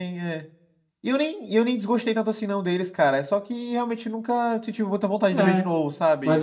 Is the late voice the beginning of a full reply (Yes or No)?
Yes